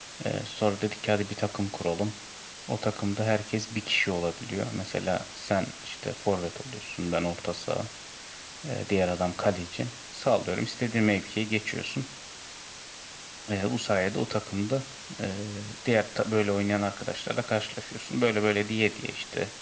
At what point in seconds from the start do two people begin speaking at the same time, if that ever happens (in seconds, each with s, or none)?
none